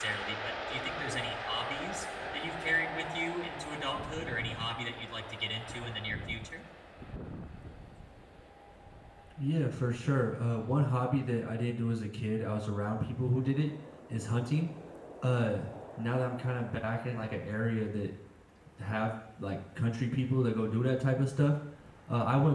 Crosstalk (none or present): none